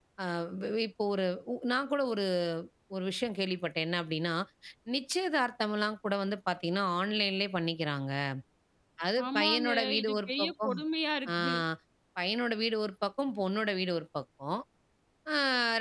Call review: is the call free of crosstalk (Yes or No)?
No